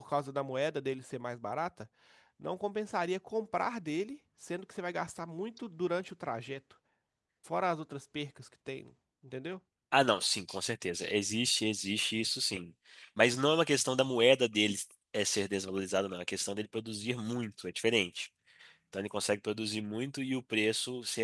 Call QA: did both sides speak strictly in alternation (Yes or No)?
Yes